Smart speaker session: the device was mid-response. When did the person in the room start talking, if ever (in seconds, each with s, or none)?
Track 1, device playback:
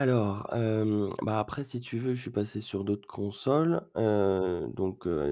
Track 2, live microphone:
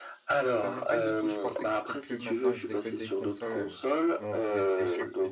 0.5 s